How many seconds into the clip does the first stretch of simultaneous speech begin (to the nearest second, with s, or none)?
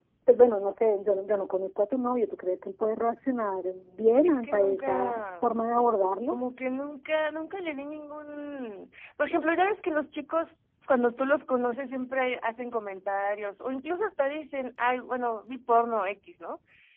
4 s